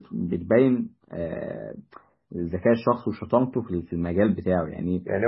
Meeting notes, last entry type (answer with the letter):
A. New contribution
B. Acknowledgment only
A